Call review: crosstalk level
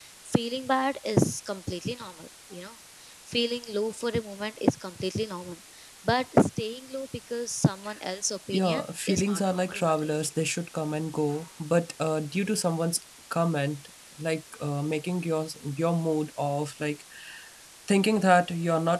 present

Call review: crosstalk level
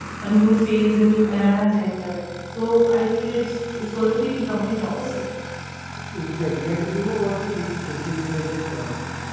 none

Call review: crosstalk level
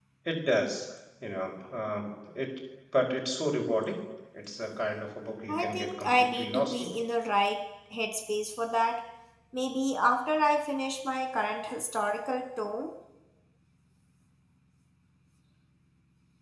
present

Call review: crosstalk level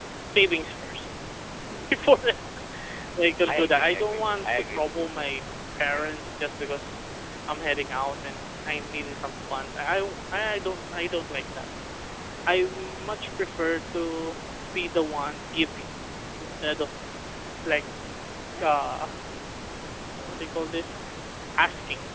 present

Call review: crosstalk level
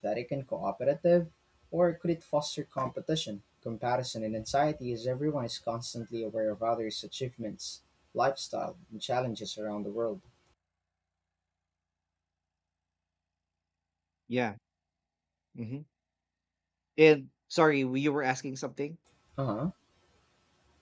none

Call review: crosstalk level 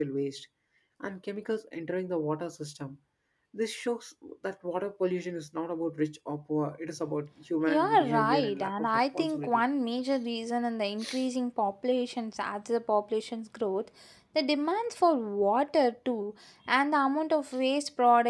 present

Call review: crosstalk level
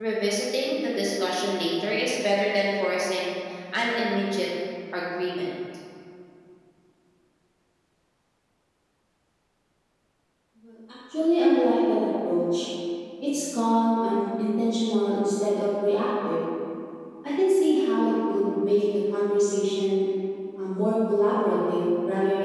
none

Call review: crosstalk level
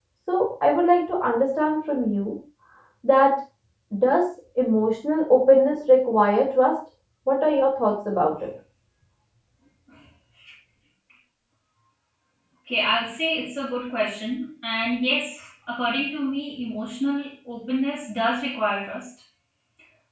none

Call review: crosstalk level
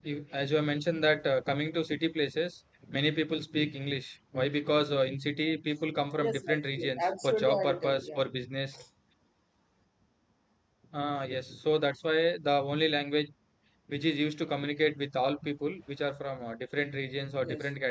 present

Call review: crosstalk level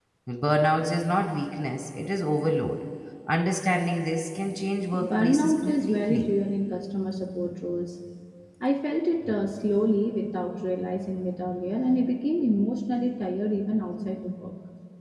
present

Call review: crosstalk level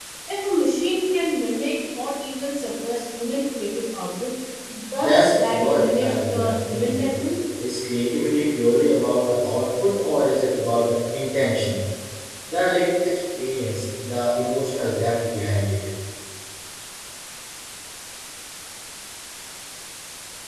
present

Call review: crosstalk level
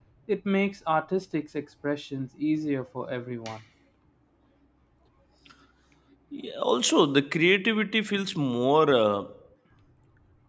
none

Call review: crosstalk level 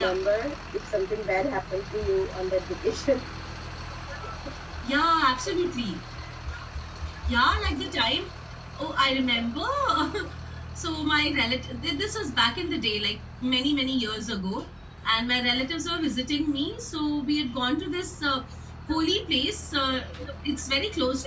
none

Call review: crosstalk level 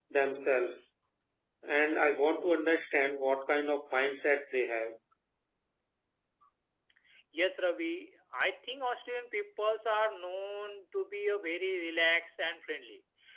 none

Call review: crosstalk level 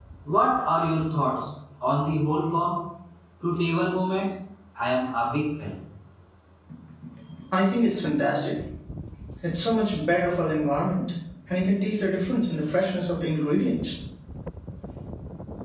none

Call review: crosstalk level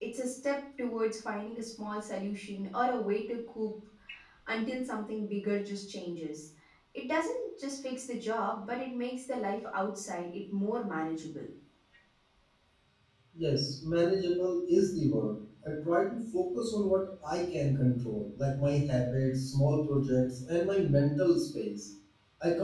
none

